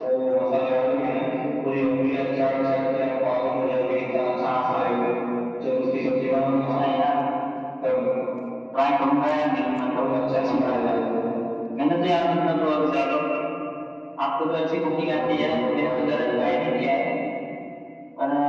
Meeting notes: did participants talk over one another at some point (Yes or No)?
Yes